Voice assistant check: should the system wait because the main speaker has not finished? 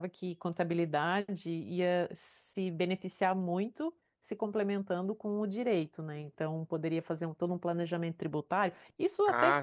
Yes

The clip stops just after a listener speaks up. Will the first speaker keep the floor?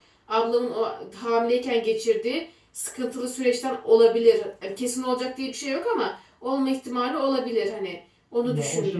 No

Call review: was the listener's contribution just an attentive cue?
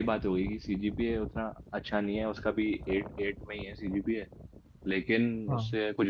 Yes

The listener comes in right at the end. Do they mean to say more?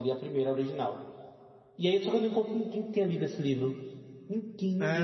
Yes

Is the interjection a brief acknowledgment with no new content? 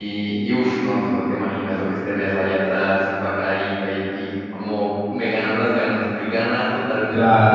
No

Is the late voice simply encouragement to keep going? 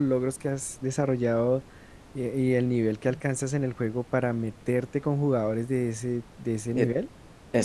No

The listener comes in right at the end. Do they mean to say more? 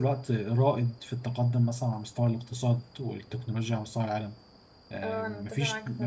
Yes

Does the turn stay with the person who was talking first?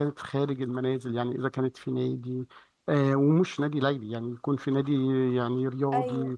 Yes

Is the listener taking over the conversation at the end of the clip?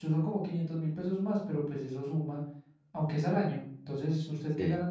No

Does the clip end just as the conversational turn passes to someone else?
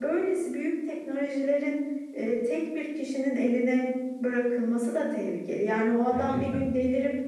No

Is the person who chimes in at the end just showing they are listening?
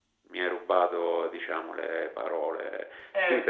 No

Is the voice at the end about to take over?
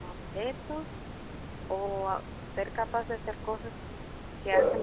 Yes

